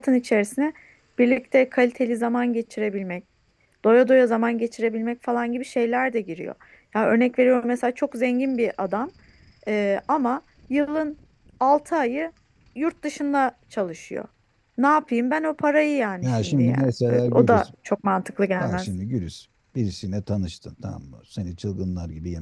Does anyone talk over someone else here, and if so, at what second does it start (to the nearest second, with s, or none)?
16 s